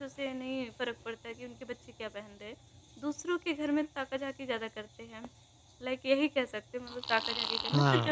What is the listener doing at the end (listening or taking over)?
taking over